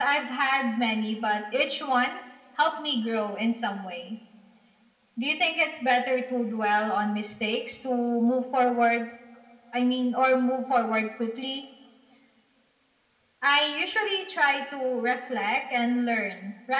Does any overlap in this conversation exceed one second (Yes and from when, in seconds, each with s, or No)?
No